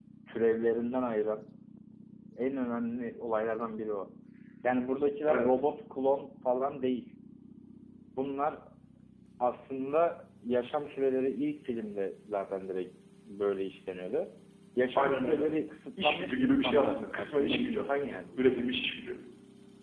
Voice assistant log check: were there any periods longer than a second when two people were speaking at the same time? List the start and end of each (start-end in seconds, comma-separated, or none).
16.0-18.6